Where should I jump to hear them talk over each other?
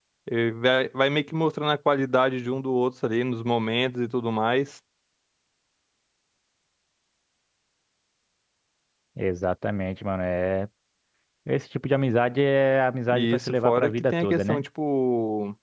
13.1 s

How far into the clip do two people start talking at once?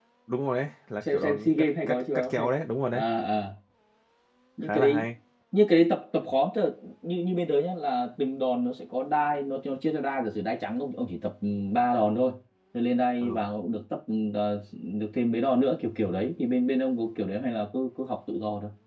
1.0 s

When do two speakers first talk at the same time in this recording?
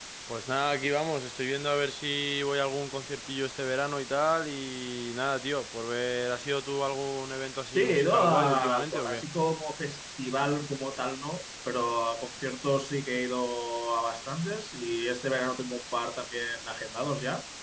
7.7 s

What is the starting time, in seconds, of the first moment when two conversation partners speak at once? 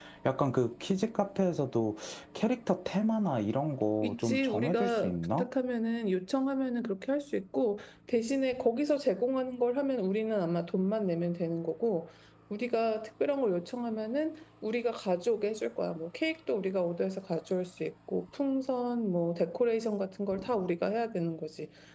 4.0 s

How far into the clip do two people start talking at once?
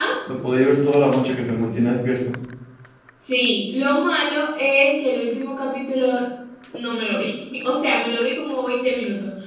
none

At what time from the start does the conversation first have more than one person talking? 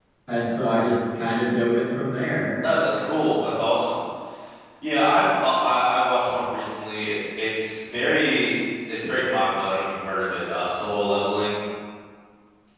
none

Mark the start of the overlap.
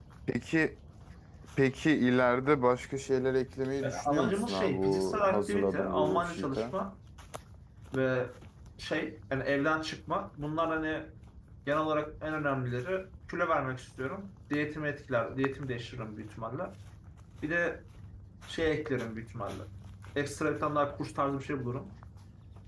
3.8 s

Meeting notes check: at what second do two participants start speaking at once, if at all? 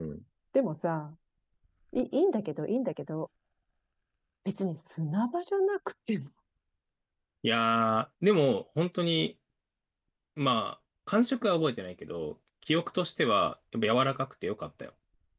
none

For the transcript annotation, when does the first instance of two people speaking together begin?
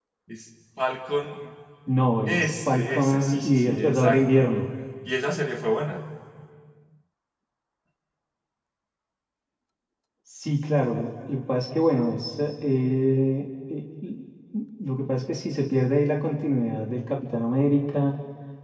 2.2 s

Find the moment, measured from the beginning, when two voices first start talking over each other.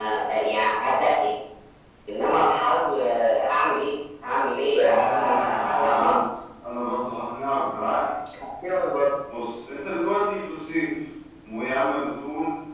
4.8 s

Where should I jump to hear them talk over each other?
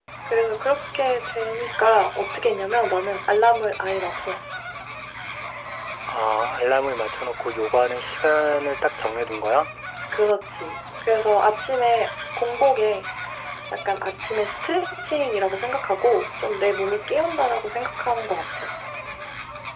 none

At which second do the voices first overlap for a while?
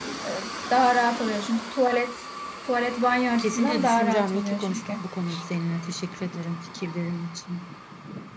3.4 s

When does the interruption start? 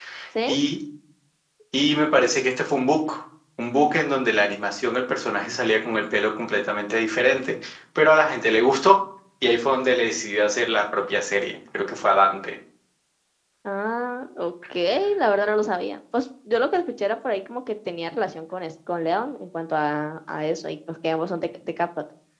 none

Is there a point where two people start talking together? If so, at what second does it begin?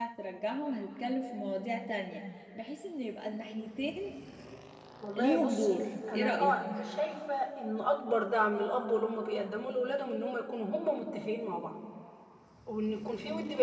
5.2 s

